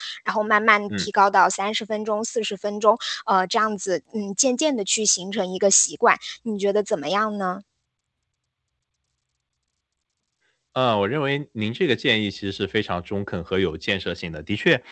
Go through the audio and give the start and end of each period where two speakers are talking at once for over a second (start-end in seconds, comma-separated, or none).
none